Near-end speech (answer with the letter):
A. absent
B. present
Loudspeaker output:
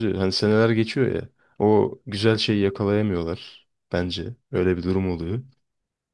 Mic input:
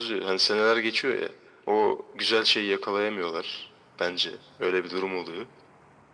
A